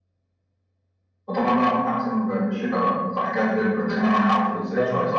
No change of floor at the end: No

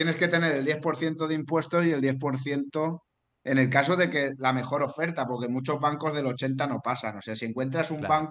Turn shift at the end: No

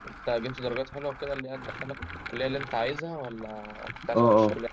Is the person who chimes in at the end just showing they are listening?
No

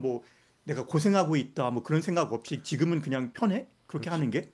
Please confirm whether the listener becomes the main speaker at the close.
Yes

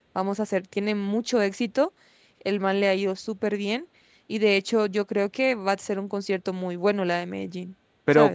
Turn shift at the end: Yes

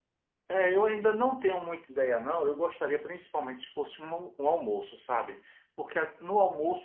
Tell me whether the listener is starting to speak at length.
No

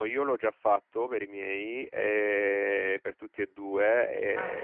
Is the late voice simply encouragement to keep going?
Yes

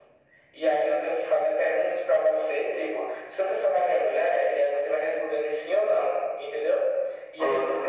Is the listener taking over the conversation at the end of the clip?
No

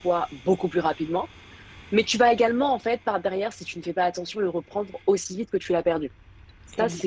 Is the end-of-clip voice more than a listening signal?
No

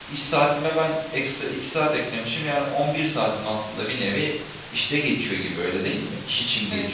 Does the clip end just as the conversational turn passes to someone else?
Yes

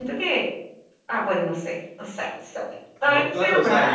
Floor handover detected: Yes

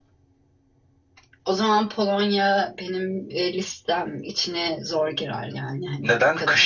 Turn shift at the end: Yes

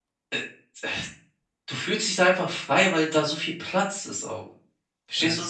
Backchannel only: No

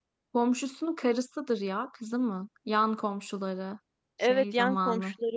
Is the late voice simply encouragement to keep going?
No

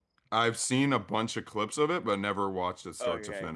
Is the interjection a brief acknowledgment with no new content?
No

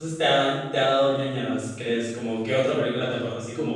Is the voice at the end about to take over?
Yes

